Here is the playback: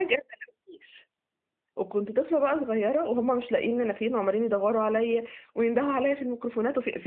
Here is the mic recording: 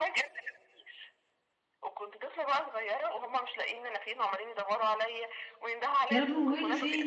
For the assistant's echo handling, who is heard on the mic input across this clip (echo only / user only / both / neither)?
both